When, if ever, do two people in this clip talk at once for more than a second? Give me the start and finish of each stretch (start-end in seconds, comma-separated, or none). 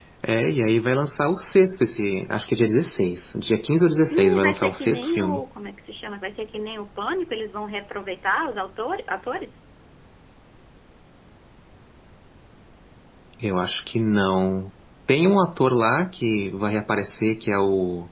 4.1-5.4